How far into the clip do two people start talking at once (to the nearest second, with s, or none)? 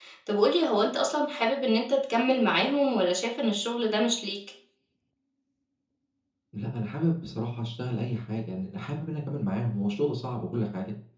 none